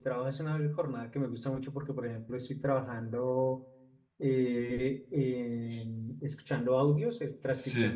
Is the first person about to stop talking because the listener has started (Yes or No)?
No